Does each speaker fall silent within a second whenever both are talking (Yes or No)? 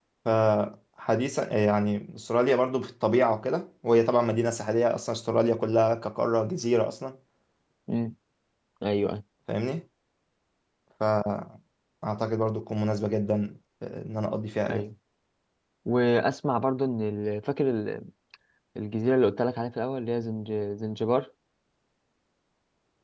Yes